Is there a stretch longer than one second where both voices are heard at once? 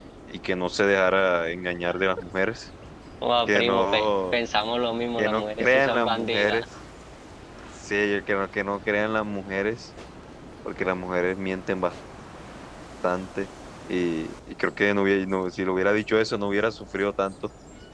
Yes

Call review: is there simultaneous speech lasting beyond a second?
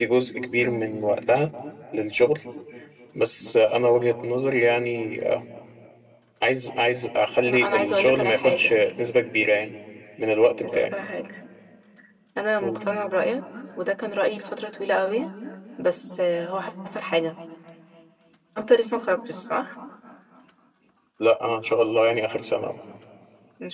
Yes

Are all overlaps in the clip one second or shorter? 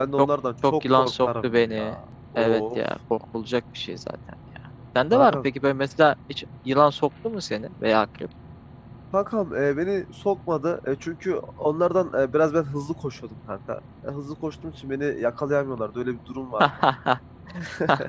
No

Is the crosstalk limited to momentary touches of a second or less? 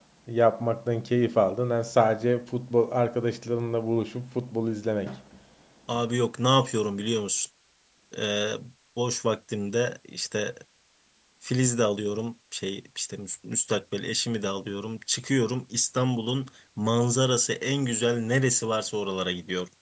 Yes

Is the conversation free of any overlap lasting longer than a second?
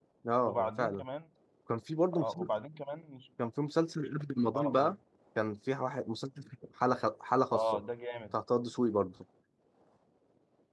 Yes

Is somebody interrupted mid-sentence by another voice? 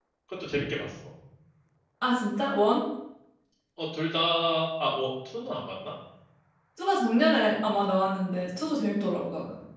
No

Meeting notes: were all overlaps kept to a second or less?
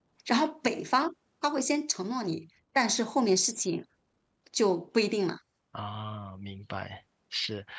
Yes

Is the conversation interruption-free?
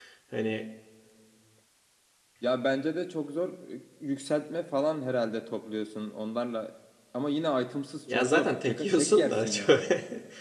No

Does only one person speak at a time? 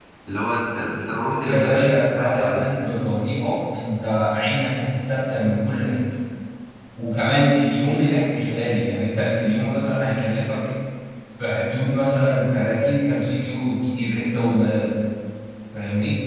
No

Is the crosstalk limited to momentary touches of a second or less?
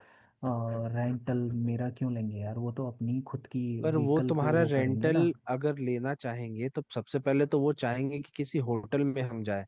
No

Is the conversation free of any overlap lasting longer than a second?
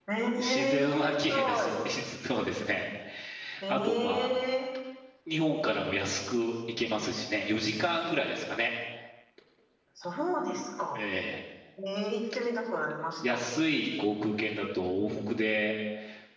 No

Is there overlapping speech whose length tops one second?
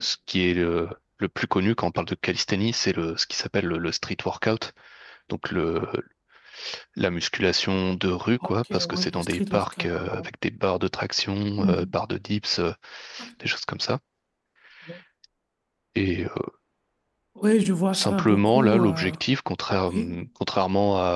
Yes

